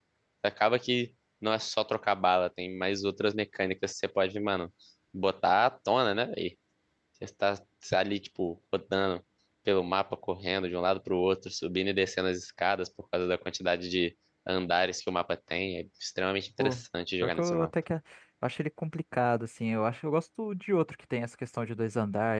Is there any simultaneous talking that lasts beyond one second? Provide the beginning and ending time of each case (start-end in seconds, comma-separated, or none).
none